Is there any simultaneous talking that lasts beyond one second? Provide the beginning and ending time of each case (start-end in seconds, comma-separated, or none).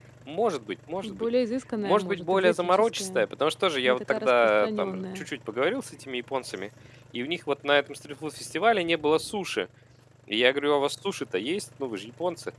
1.8-3.3, 3.8-5.3